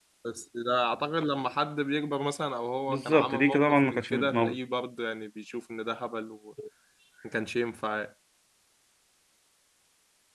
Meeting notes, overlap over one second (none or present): present